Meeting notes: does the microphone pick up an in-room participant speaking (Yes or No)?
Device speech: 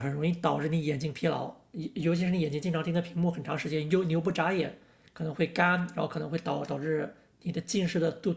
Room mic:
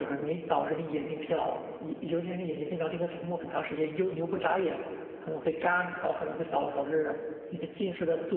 No